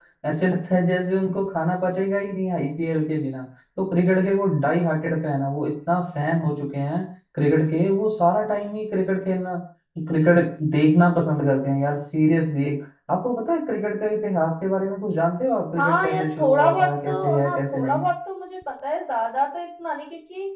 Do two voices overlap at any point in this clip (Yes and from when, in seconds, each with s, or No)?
Yes, from 15.8 s